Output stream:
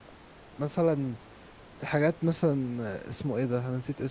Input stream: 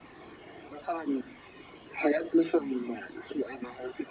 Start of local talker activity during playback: none

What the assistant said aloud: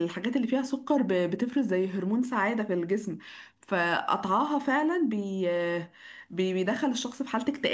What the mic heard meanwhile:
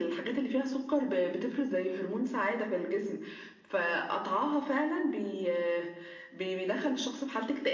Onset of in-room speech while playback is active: none

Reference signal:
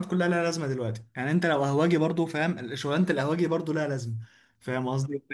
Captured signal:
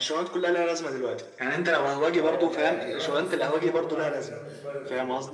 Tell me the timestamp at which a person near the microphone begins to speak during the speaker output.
2.1 s

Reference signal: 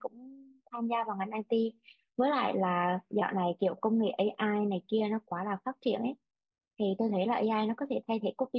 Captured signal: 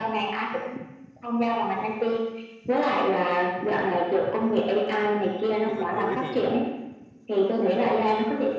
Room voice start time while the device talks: 5.2 s

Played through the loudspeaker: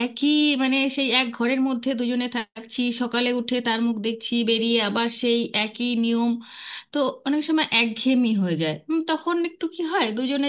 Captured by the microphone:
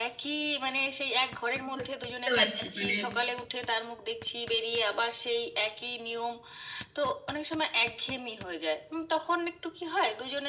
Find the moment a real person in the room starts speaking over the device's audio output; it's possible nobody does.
1.6 s

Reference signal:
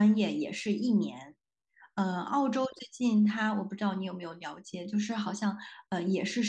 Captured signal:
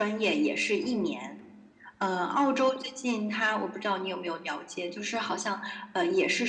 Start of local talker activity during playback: none

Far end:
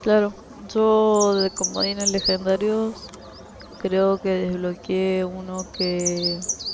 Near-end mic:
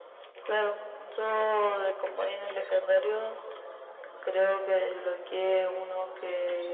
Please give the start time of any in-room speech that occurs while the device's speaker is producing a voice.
none

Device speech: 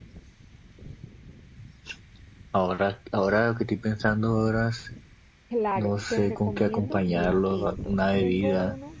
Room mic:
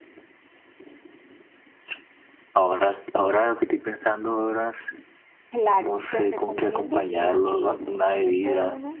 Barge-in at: none

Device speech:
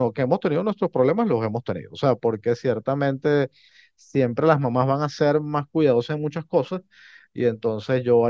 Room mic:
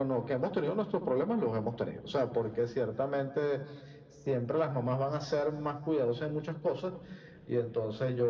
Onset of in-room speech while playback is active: none

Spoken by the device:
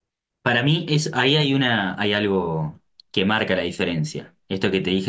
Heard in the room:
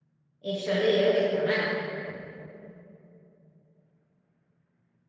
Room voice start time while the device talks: 0.4 s

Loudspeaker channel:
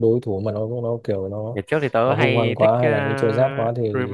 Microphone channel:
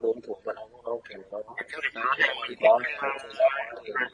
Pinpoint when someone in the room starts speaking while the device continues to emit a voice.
none

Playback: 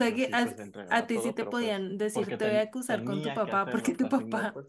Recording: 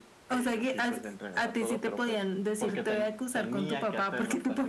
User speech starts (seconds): none

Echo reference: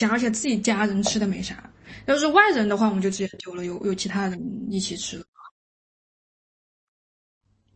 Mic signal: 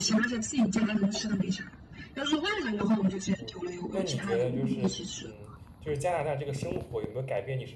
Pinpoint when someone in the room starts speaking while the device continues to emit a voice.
3.3 s

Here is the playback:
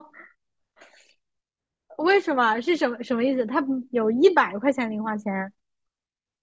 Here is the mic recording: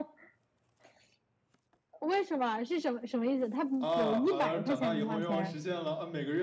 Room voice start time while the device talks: 3.8 s

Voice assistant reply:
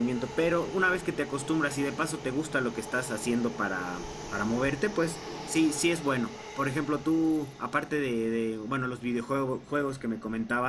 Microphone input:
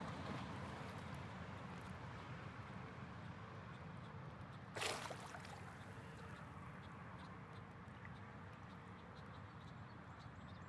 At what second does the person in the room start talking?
none

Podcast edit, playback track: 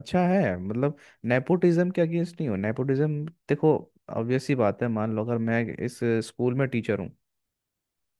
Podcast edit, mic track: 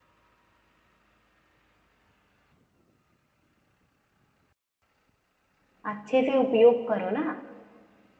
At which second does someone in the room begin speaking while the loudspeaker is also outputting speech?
5.9 s

